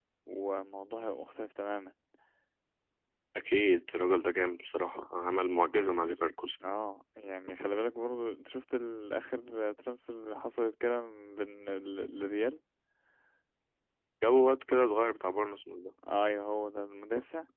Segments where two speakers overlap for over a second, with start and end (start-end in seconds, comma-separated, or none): none